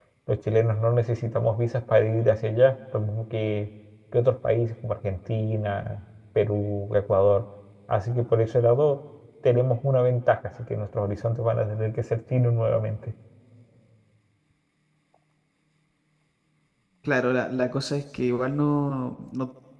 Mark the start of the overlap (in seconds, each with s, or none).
none